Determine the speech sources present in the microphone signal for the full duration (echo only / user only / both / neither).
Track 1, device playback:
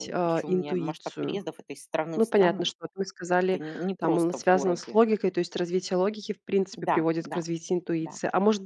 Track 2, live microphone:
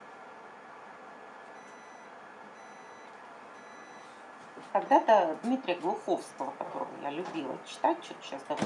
user only